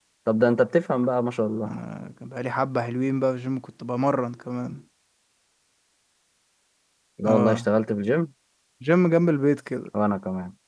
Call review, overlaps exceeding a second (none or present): none